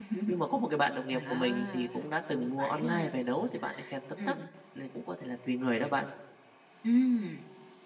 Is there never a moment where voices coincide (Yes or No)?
No